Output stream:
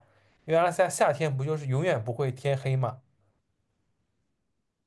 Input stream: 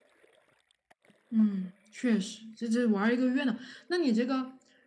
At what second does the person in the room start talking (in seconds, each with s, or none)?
1.3 s